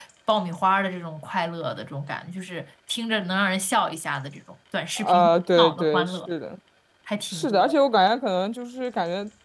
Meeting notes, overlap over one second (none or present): present